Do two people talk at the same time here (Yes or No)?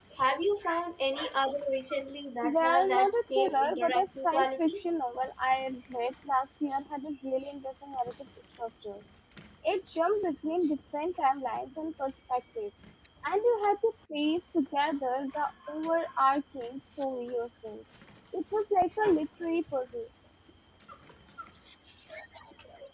Yes